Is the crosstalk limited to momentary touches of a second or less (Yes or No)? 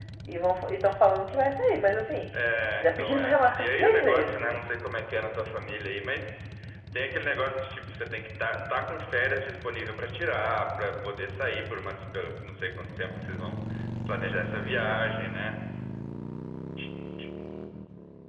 No